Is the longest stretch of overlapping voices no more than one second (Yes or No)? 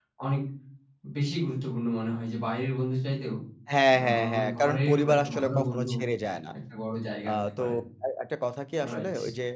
No